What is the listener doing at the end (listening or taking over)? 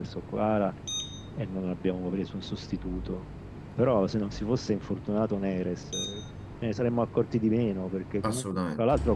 listening